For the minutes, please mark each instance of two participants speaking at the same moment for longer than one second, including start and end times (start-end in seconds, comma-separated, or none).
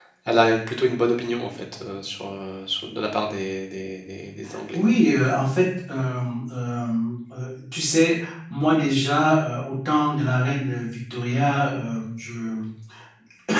none